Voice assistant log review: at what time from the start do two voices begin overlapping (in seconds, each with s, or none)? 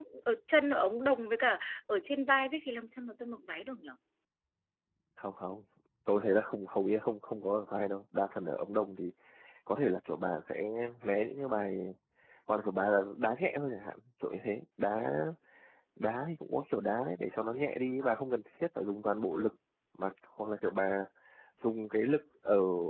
none